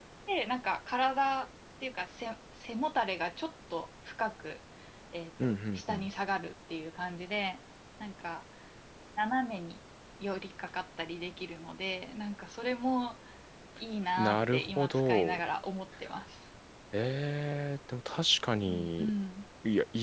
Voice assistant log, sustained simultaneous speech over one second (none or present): present